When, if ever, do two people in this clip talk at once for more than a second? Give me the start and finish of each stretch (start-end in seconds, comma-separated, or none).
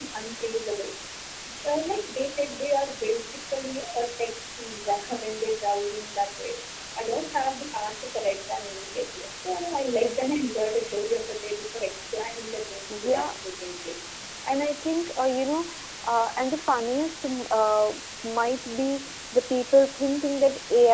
none